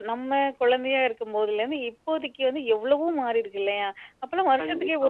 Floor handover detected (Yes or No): No